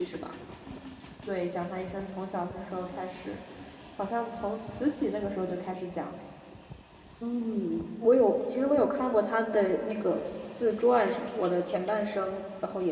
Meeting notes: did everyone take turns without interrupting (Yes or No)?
Yes